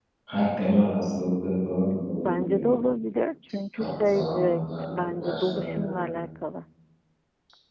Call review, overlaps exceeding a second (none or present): present